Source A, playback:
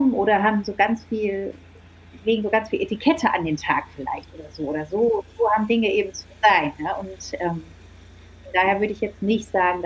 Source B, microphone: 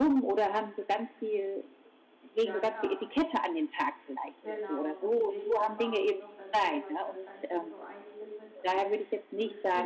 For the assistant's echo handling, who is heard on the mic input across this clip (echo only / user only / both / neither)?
both